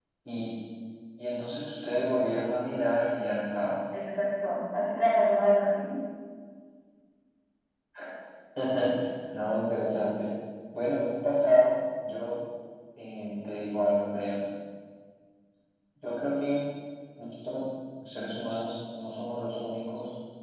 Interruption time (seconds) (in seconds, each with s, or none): none